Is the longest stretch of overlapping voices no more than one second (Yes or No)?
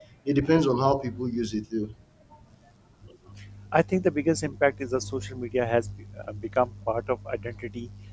Yes